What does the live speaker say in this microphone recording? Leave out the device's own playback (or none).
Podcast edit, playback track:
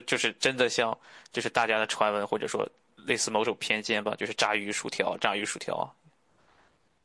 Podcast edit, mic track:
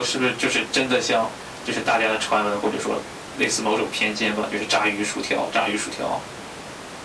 none